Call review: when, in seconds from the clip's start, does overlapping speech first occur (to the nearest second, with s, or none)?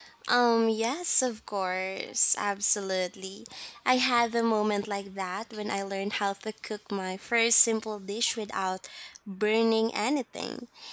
none